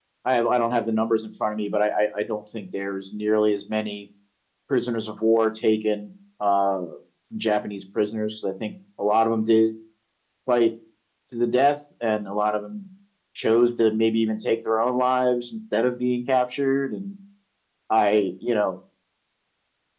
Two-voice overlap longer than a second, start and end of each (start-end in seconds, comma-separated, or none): none